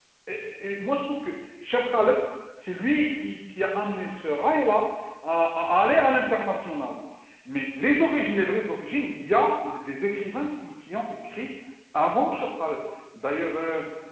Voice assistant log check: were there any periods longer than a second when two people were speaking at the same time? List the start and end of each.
none

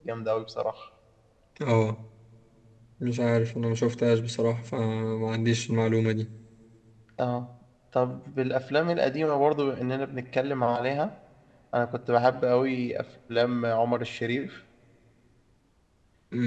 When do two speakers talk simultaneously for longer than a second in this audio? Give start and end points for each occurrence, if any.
none

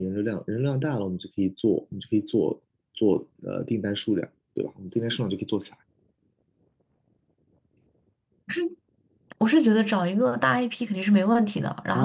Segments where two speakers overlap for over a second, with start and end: none

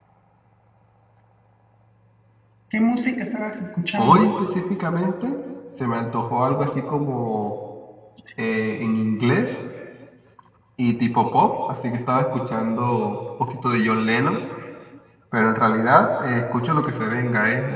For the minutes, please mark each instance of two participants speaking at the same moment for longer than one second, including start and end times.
none

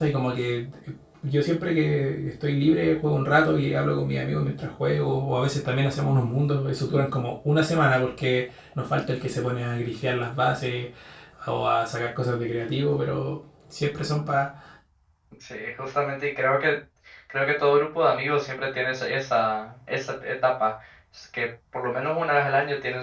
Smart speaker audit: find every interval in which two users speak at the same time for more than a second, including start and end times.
none

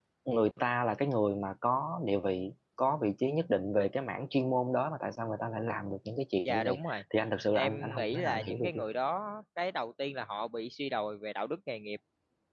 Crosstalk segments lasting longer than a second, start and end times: 7.5-8.8

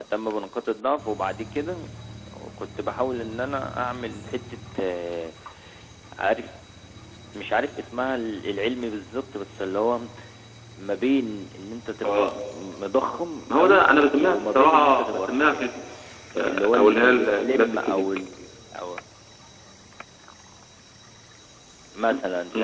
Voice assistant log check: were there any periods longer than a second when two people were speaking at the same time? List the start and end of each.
13.5-15.7, 16.4-18.0

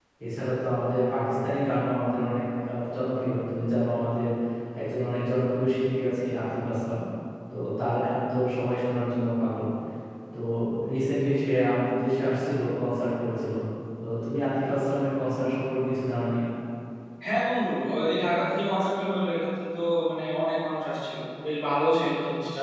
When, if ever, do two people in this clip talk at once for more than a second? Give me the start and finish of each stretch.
none

